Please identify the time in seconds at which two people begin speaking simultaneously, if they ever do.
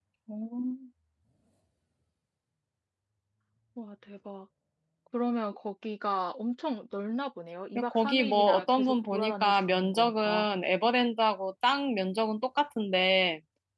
7.8 s

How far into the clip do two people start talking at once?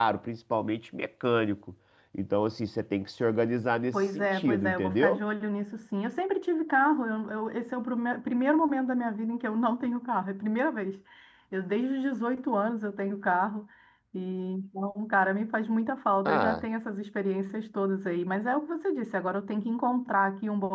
3.9 s

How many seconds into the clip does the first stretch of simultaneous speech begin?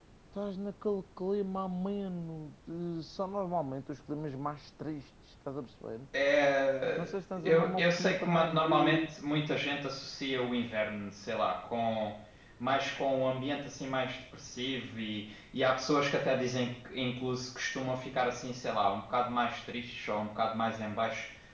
7.0 s

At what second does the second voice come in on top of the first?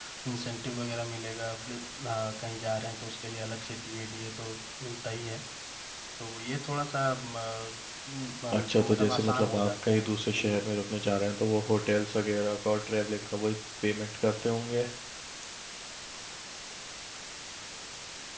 8.6 s

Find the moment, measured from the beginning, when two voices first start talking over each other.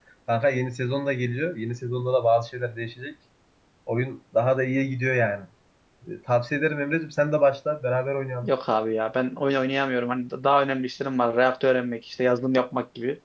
none

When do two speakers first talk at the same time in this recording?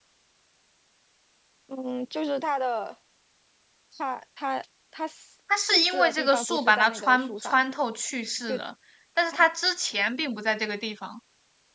5.5 s

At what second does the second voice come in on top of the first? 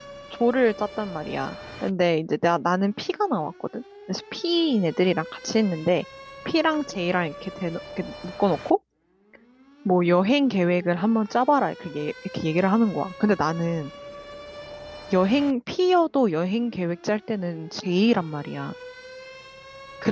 none

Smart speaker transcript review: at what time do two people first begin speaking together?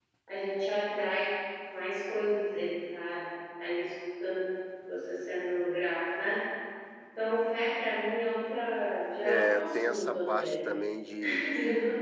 9.2 s

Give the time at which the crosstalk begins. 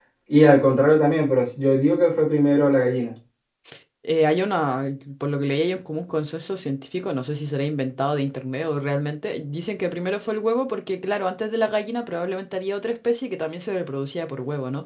none

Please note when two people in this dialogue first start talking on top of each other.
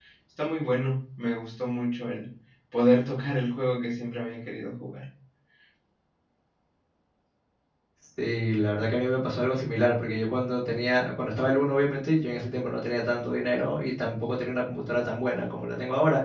none

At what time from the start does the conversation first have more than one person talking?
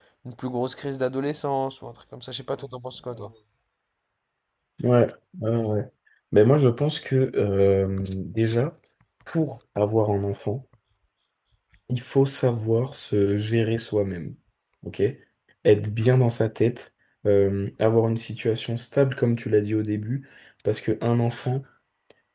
none

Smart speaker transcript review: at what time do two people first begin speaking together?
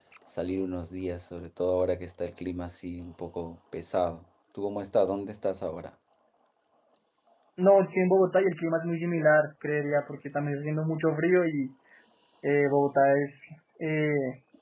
none

